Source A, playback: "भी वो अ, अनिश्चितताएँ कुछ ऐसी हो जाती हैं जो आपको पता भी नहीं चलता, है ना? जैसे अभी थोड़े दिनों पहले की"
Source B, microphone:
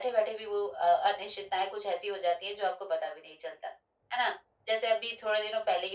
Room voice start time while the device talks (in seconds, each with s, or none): none